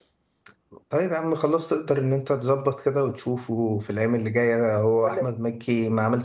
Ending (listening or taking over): listening